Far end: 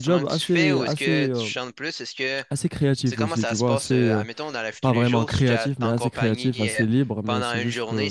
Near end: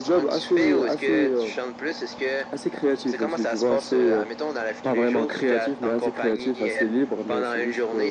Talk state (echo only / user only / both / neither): echo only